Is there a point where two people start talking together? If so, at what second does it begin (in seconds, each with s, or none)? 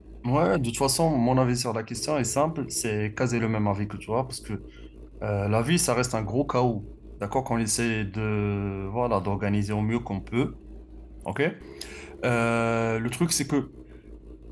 none